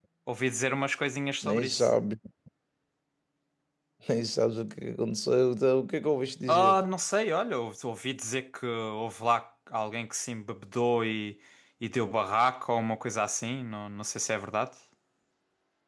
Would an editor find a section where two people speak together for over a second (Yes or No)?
No